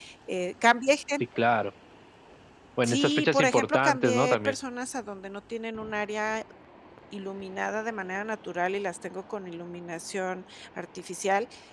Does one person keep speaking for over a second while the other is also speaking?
Yes, from 2.8 s

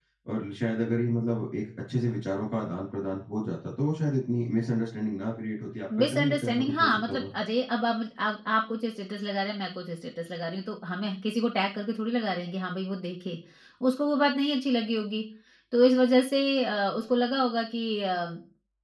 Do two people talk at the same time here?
Yes, from 5.9 s

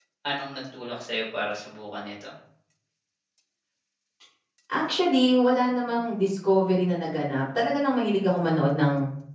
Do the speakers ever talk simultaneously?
No

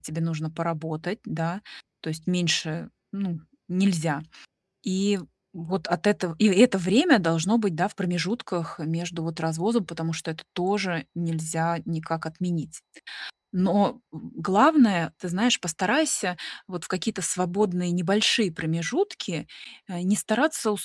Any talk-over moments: No

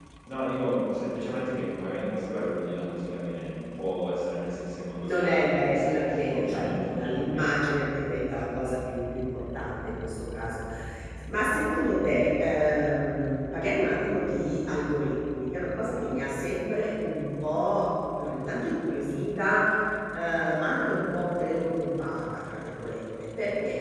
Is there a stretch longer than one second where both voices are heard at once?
Yes, from 5.0 s

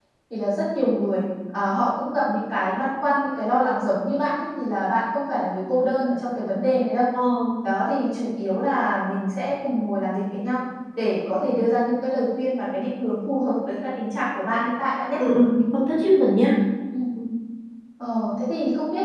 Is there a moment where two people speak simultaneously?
No

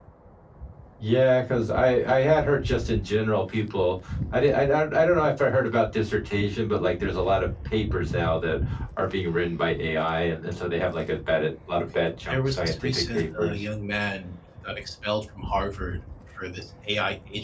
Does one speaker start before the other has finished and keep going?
Yes, from 12.3 s

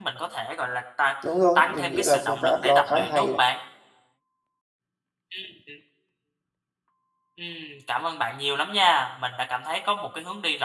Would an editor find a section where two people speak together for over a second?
Yes, from 1.6 s

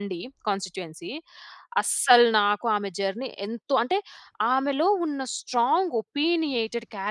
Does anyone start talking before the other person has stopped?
No

